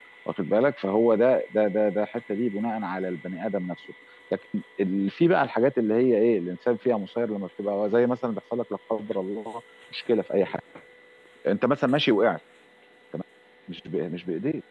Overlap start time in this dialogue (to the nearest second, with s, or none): none